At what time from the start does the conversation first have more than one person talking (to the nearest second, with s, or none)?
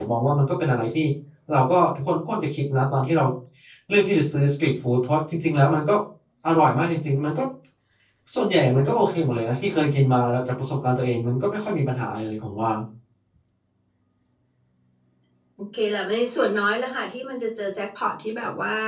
none